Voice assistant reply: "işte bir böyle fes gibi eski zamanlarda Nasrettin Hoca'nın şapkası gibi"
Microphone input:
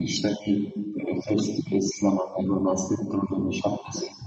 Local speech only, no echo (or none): none